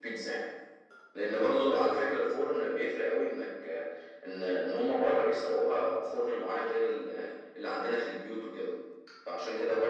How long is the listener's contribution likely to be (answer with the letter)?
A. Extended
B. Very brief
B